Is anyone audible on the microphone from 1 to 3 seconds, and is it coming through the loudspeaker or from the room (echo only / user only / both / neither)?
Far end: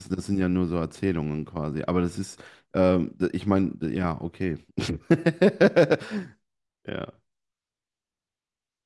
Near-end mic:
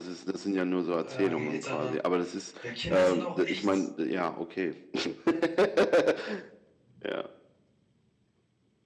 both